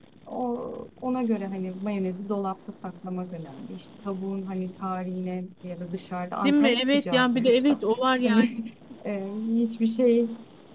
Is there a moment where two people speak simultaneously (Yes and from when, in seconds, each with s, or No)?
Yes, from 6.4 s